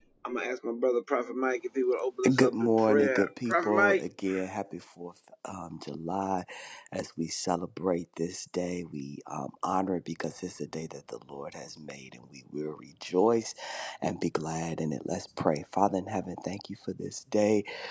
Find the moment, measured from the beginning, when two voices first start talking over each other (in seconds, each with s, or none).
2.2 s